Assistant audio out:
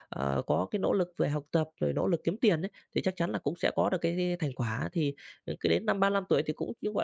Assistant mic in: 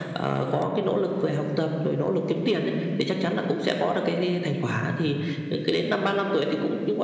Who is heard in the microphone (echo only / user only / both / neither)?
echo only